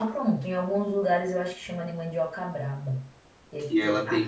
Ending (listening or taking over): taking over